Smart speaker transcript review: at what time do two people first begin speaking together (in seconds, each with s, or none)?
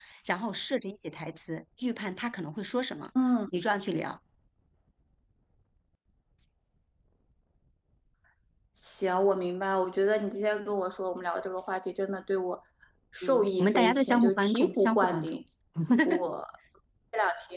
13.2 s